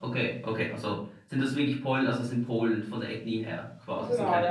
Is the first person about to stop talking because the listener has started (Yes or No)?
Yes